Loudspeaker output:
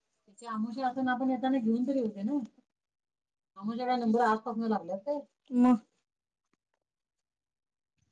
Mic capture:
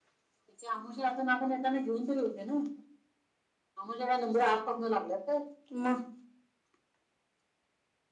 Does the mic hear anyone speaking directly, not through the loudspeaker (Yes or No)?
No